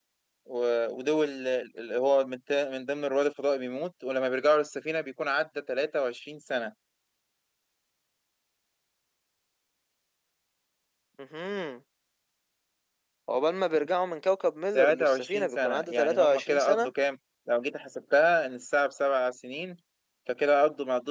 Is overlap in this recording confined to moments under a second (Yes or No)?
No